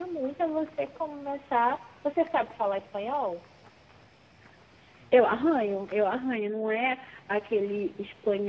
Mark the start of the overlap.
none

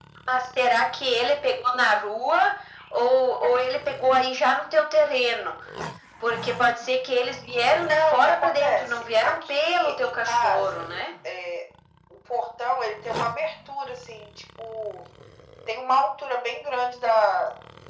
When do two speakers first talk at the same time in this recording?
7.9 s

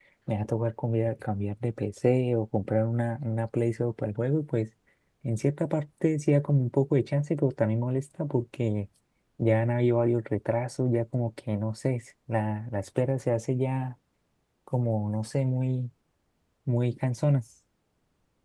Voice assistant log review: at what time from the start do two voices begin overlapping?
none

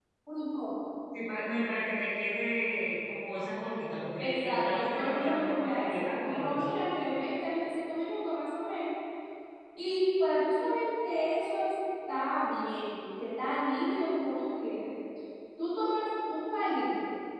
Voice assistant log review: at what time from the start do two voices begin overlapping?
4.2 s

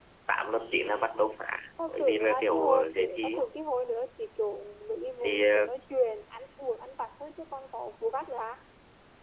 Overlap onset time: 1.9 s

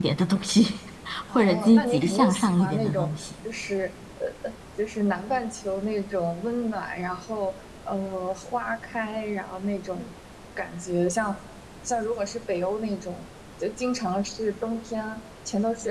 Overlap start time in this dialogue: 1.3 s

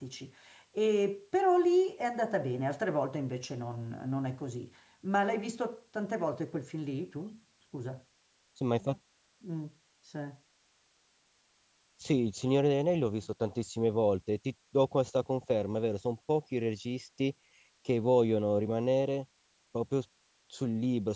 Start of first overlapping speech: none

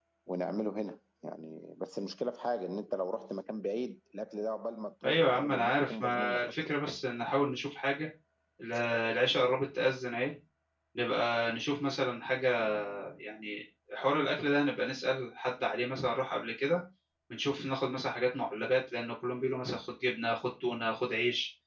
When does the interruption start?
5.0 s

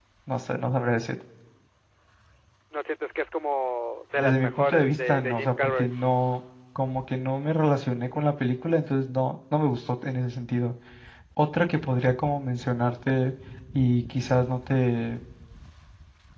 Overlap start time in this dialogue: 4.2 s

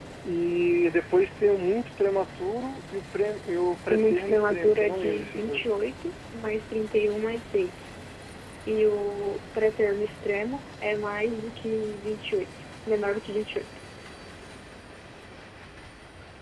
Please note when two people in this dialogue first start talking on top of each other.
3.9 s

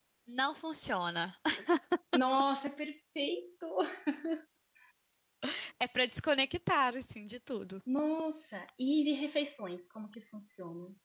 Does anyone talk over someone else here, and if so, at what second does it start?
none

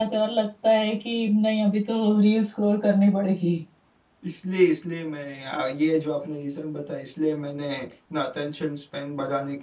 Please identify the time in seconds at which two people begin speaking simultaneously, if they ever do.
none

